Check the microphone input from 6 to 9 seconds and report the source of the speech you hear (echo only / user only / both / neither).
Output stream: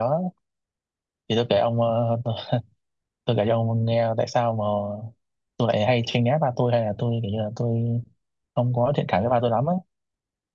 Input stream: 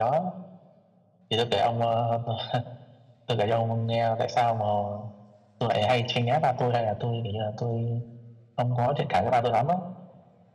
echo only